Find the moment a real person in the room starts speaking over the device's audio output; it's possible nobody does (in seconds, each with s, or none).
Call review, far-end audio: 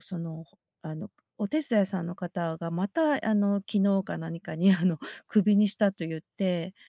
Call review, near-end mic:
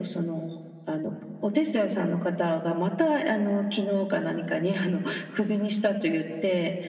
none